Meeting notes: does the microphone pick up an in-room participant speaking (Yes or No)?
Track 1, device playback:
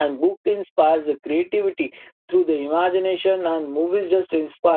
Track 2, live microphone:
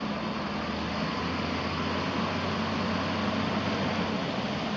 No